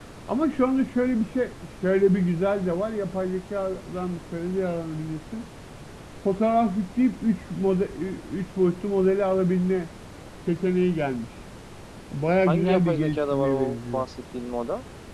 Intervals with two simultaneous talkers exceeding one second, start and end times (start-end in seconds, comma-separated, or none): 12.5-14.1